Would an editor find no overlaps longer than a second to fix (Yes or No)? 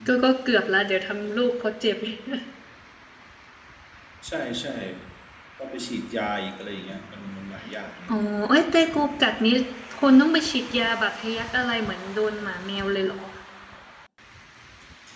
Yes